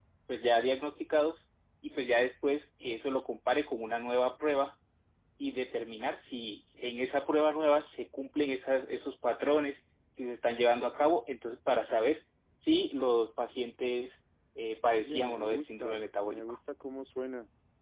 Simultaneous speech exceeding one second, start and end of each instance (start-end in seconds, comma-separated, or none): 15.0-16.4